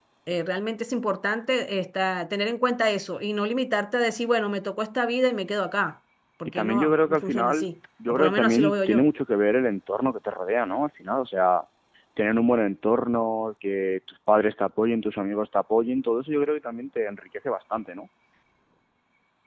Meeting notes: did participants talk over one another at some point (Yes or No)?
Yes